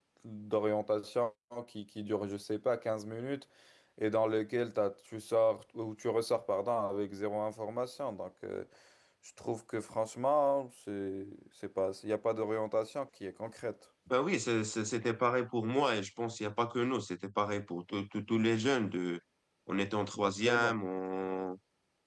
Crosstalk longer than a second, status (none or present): none